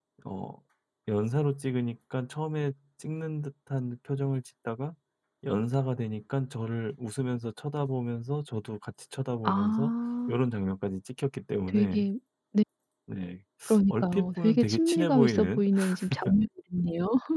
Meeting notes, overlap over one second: present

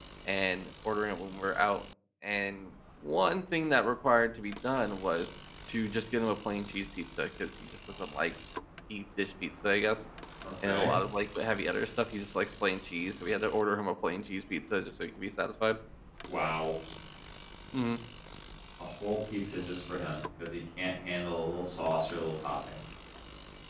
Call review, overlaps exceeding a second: none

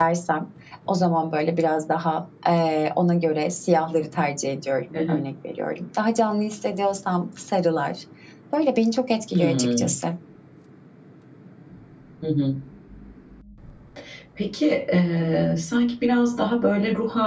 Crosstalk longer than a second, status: none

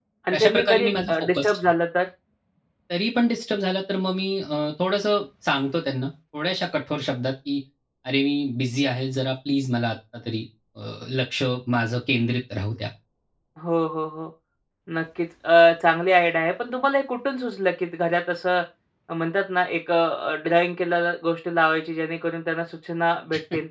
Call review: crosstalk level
present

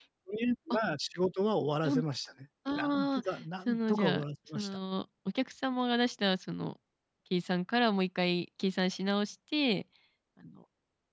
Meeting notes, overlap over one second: present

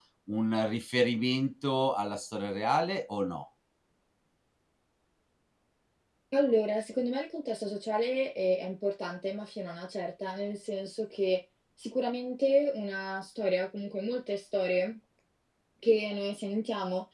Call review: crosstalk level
none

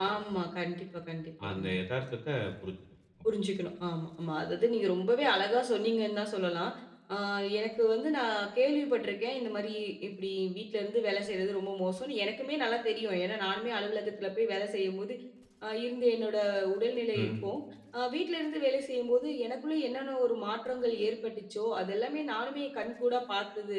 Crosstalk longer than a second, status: none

